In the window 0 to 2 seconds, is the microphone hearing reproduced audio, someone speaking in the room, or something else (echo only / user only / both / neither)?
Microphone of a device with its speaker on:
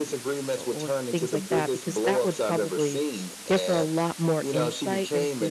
both